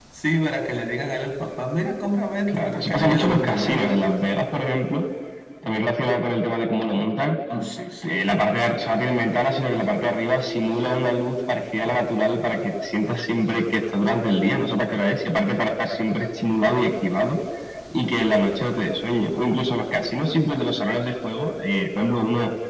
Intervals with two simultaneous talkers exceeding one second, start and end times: 2.5-3.9

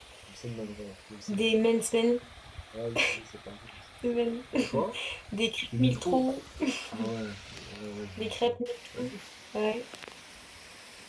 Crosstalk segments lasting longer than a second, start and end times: none

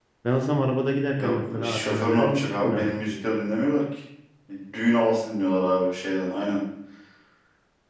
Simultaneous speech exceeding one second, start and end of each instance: 1.1-2.9

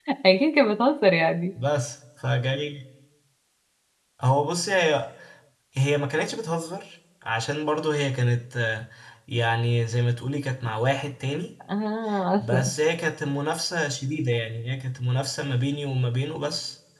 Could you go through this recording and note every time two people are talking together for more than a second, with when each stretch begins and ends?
none

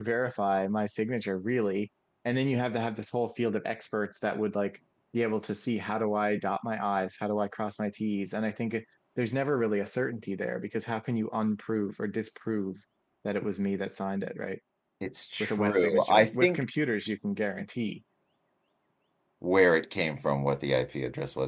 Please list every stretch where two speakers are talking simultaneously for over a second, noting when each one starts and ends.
15.4-16.6

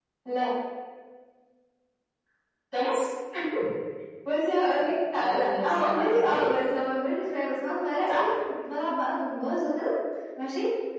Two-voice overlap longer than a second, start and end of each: 5.2-6.4

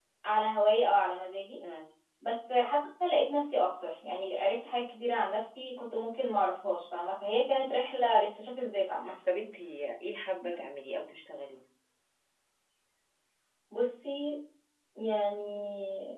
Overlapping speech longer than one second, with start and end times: none

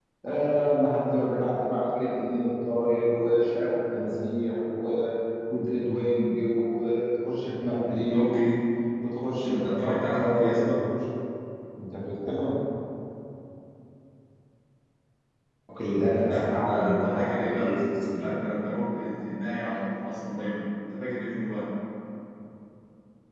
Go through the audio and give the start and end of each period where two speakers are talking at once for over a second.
9.5-10.7, 16.3-18.3

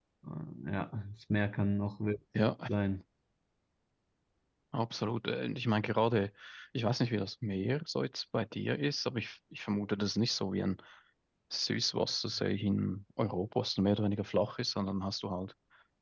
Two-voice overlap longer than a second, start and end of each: none

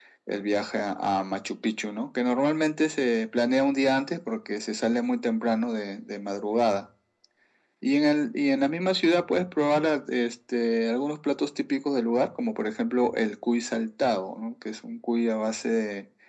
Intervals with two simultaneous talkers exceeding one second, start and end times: none

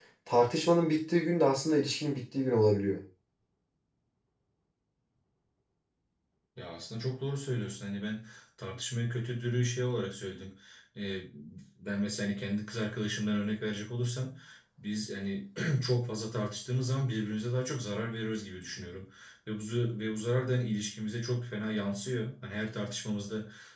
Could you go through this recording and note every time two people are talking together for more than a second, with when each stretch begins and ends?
none

